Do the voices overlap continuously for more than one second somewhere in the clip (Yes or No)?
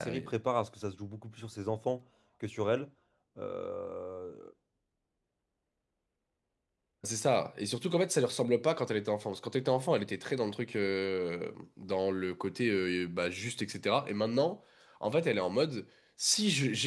No